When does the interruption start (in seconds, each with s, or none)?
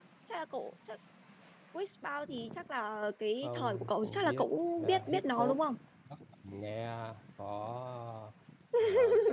3.4 s